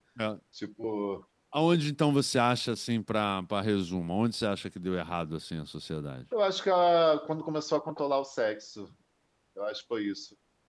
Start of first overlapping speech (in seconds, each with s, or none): none